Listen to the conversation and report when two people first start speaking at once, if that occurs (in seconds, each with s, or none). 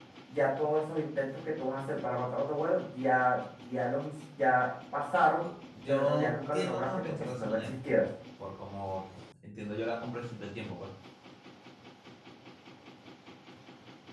5.9 s